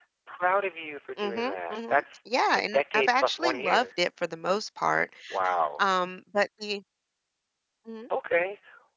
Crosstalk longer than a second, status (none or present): present